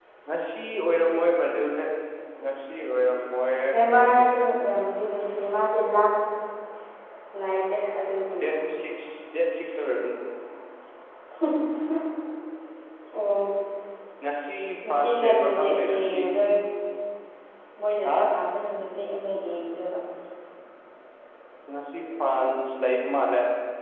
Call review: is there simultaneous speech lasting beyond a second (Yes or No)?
Yes